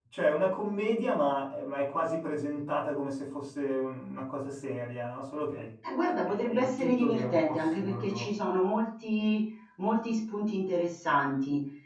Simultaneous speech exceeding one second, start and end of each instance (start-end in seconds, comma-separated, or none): 6.2-8.3